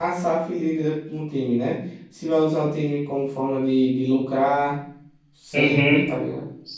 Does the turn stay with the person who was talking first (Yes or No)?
No